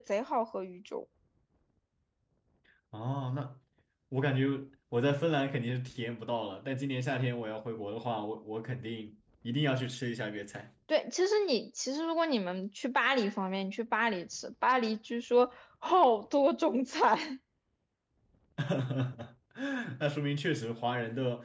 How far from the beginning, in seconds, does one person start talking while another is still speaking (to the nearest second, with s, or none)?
none